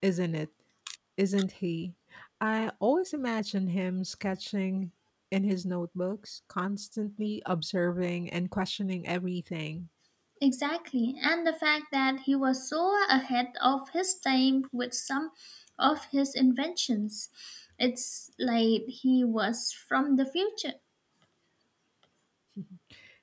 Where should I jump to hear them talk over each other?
none

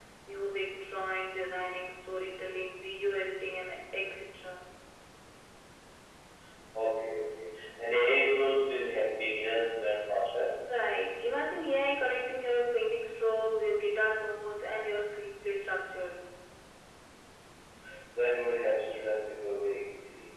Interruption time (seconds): none

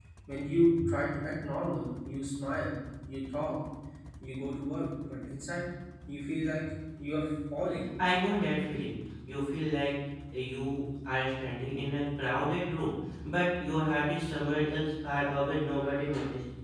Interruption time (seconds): none

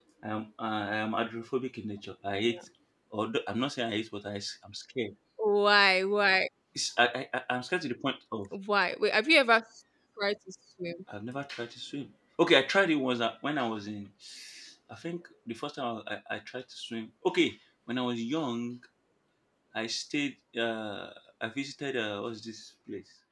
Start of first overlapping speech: none

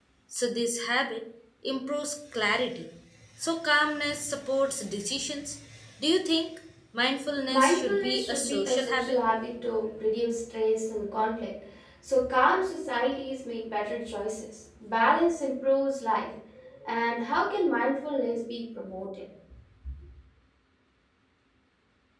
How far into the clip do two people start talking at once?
7.5 s

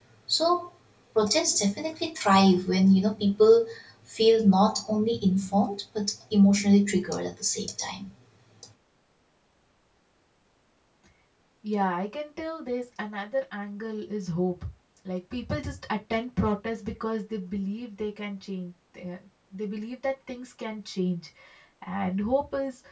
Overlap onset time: none

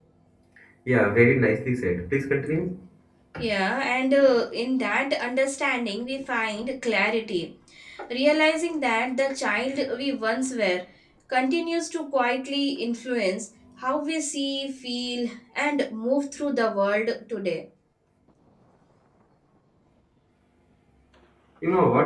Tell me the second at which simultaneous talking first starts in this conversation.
none

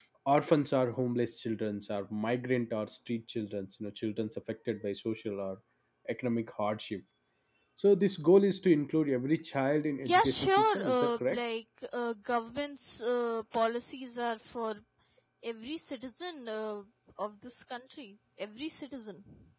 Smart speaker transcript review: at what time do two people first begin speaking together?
10.0 s

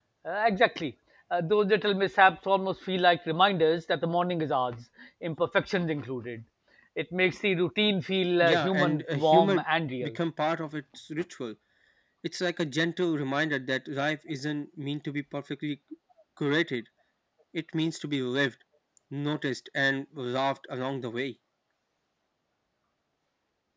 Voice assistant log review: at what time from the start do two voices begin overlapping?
8.4 s

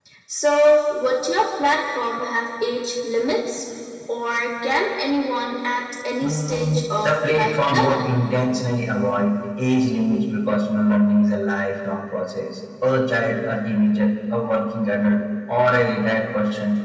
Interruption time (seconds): 6.2 s

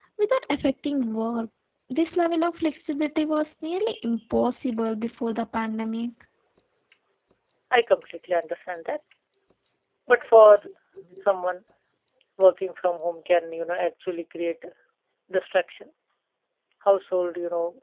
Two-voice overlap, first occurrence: none

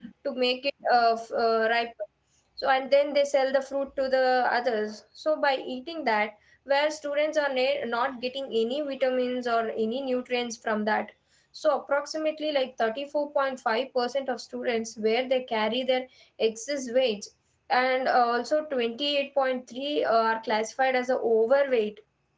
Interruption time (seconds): none

